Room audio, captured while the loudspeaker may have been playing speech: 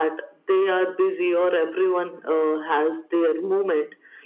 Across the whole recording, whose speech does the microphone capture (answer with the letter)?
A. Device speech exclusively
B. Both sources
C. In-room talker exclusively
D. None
A